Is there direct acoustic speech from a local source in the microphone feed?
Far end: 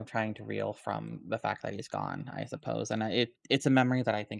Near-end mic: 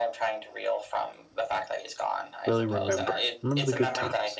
Yes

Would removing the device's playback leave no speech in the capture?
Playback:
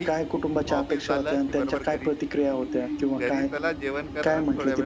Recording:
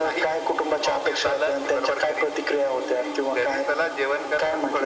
Yes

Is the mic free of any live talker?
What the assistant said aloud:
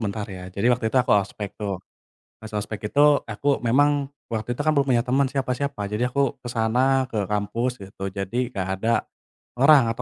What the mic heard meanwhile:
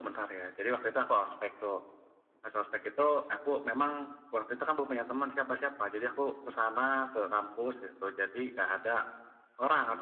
Yes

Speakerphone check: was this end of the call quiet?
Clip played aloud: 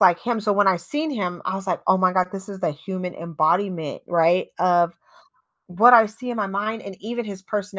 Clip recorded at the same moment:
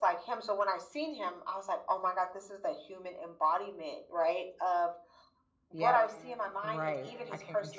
No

